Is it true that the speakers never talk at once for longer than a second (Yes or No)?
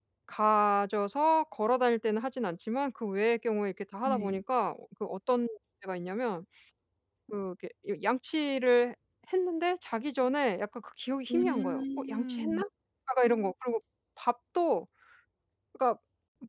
No